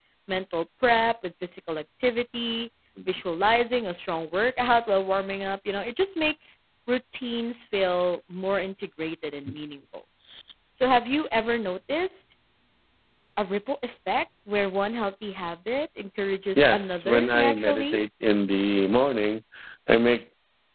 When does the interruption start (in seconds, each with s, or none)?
16.6 s